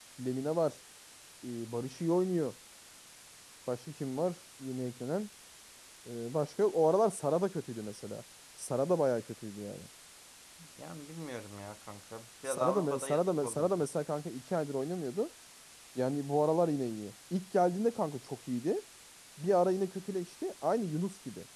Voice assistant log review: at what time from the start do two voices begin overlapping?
12.4 s

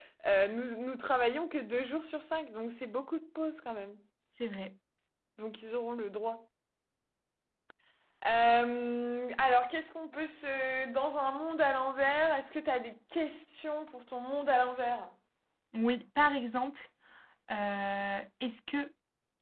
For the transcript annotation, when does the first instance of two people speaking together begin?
none

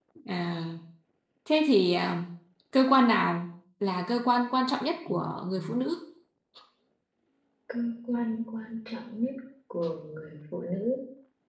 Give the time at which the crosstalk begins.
none

